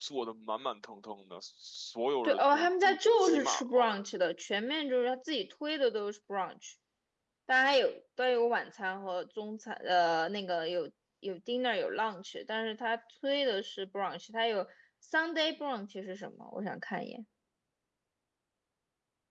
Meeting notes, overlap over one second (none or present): present